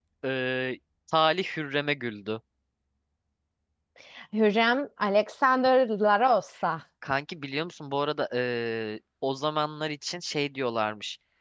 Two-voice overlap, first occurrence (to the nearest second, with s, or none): none